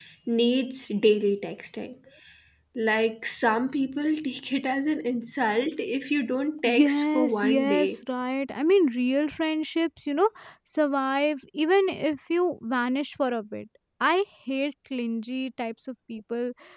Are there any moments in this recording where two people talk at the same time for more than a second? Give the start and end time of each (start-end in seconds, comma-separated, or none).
6.7-8.0